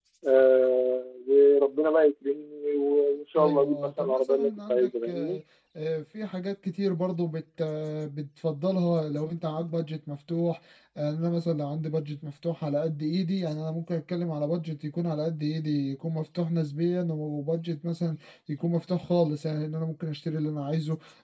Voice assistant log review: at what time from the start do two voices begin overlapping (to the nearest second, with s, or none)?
3 s